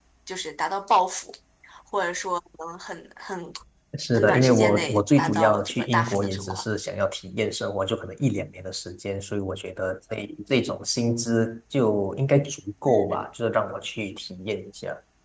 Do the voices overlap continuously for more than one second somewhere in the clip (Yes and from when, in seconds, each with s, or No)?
Yes, from 4.1 s